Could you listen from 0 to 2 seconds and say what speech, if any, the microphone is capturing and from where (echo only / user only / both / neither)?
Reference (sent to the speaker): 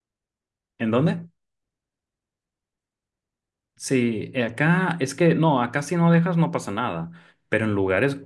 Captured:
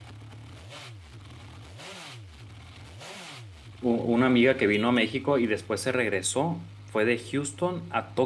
neither